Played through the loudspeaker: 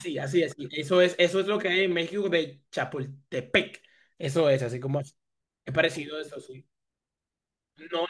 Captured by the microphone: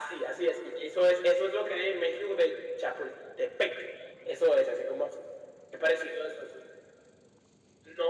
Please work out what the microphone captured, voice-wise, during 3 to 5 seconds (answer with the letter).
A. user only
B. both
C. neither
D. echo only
D